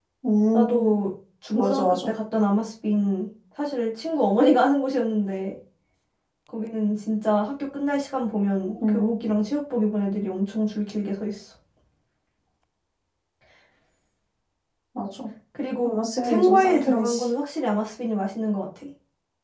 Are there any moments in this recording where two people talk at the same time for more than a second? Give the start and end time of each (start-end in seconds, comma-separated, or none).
15.8-17.2